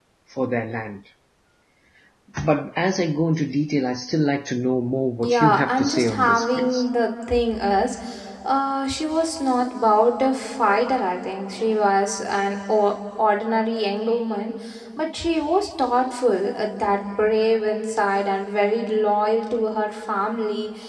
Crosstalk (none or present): present